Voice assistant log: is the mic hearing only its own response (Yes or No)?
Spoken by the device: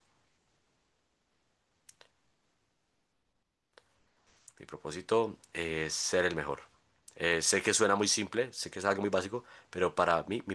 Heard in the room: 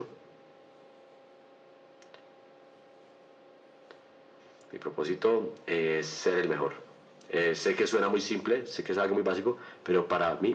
Yes